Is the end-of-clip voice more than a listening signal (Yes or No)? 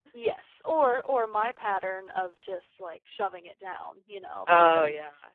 No